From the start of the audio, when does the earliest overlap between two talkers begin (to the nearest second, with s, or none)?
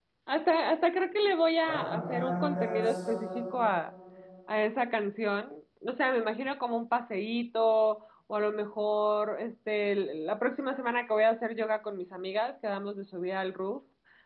2 s